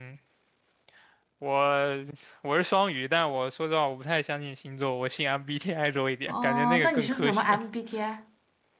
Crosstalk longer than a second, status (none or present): present